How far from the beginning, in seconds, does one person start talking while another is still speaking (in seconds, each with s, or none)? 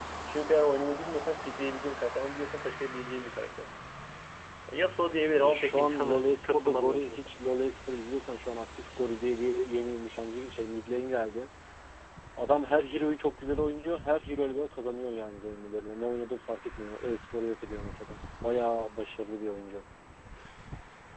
5.3 s